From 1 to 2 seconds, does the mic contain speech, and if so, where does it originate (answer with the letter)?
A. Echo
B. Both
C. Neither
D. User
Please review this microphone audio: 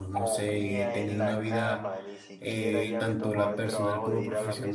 B